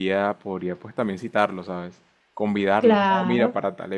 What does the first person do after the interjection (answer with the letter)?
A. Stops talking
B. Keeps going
B